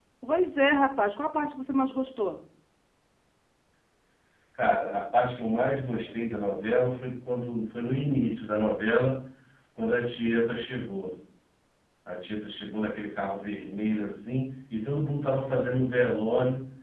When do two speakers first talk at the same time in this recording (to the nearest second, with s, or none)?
none